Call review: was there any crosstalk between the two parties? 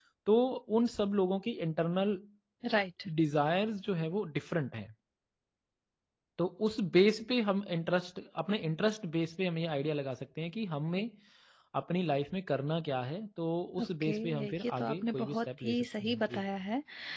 Yes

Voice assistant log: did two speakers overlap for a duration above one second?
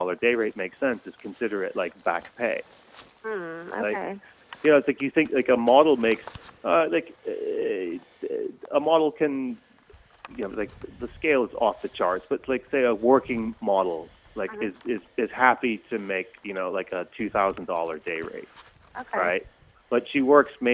No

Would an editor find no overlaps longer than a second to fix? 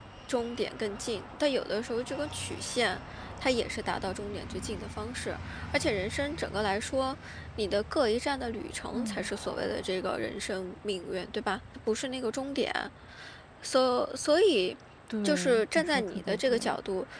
No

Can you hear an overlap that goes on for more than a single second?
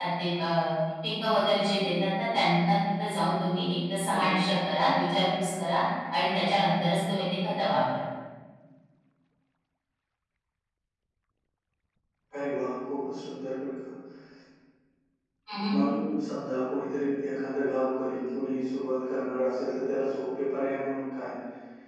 No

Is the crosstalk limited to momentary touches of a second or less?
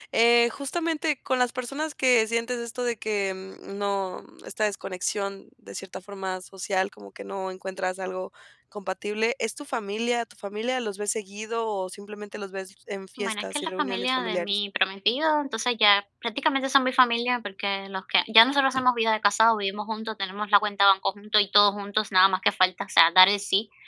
No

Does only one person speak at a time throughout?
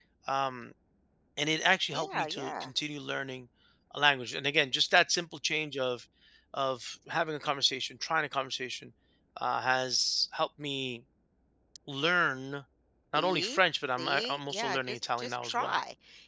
No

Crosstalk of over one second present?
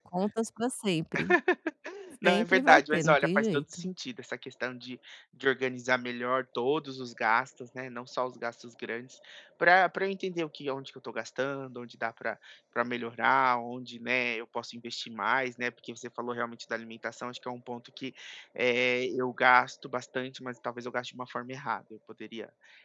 Yes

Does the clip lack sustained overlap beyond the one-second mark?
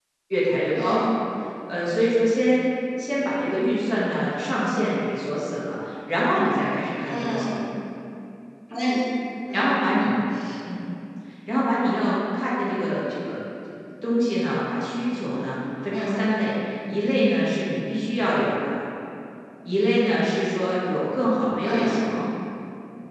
Yes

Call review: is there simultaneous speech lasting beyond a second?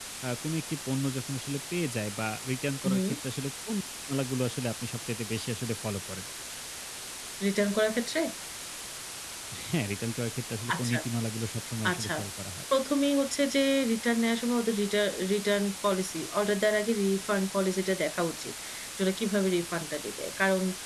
No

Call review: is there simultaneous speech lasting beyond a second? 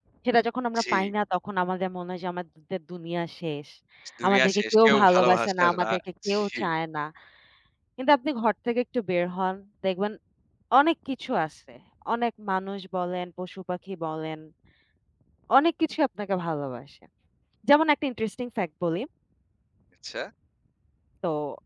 Yes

